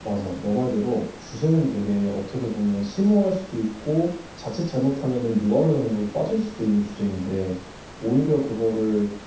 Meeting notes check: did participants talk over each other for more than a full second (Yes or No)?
No